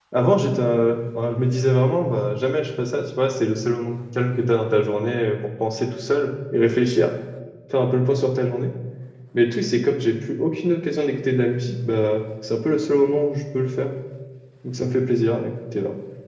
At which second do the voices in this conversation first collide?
none

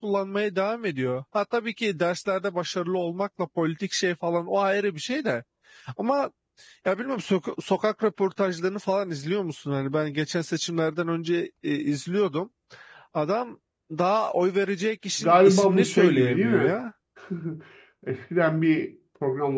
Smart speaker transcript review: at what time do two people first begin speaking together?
15.2 s

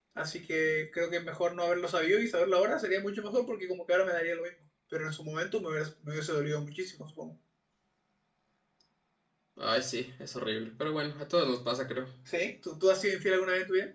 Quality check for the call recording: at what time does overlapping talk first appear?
none

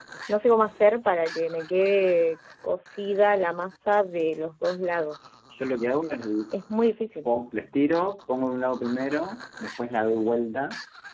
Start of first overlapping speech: none

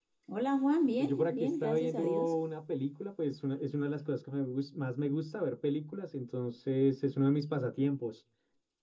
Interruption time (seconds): 1.0 s

